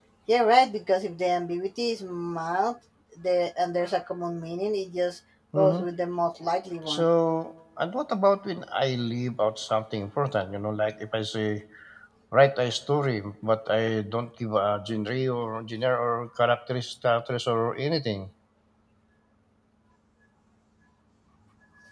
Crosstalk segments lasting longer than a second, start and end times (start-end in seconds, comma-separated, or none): none